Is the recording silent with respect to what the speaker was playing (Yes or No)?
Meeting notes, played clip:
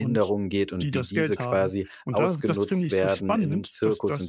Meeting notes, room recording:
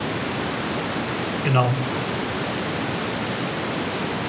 Yes